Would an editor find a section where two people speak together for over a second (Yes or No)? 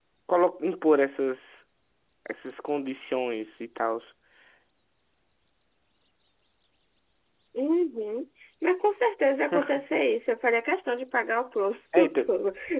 No